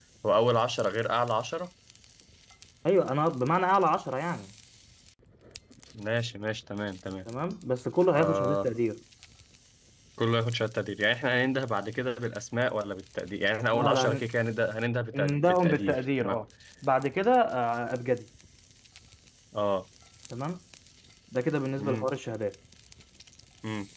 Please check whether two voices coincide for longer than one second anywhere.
Yes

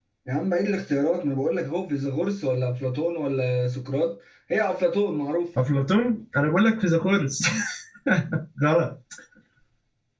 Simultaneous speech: No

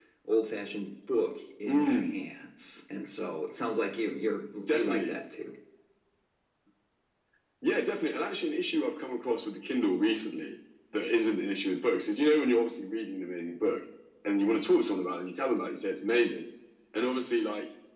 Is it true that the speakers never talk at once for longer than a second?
Yes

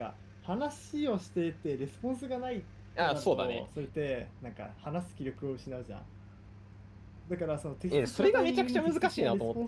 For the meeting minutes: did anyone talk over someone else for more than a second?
Yes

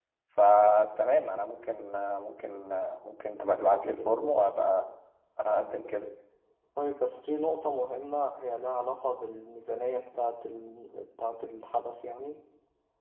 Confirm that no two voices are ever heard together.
Yes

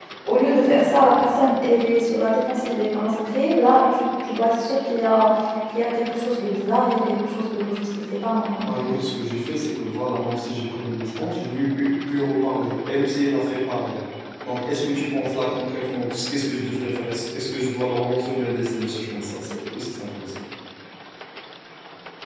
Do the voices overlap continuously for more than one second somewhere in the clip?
No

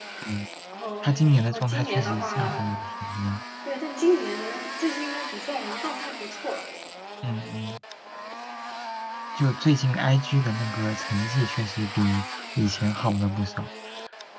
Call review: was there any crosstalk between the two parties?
Yes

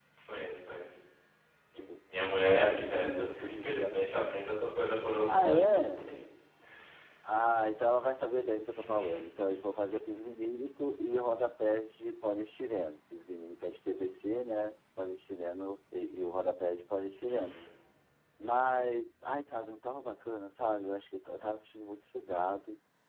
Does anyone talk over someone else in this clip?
Yes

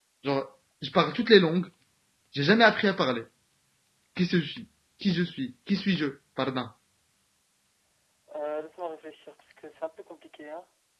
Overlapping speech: No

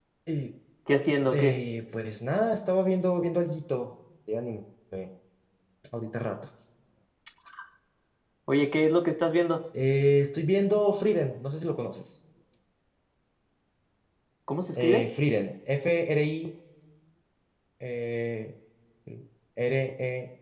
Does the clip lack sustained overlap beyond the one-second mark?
Yes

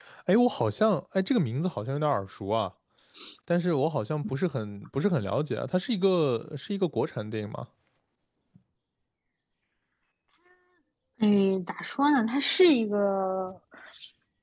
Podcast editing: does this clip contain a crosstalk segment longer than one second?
No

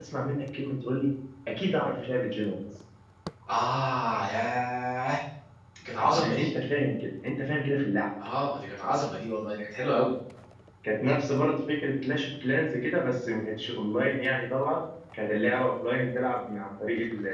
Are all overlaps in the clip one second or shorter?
Yes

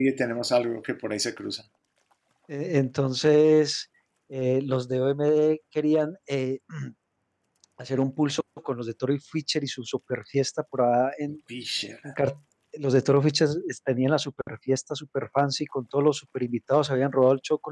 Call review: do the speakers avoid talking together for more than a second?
Yes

